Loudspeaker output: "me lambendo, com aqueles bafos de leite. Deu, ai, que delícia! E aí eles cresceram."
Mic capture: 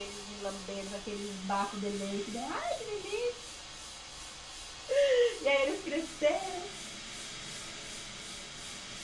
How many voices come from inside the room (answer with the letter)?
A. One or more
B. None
B